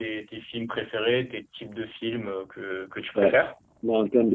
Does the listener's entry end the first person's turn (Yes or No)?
Yes